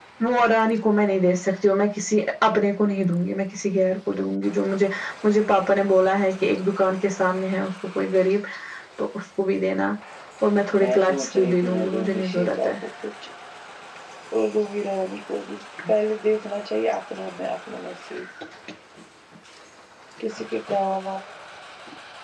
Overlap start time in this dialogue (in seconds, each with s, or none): 10.8 s